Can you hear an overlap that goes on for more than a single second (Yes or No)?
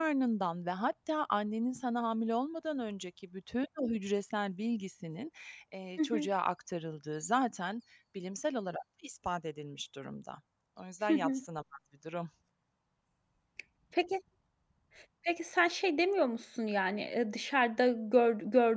No